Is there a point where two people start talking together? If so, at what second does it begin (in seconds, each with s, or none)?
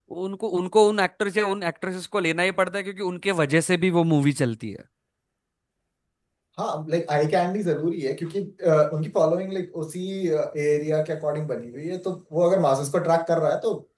none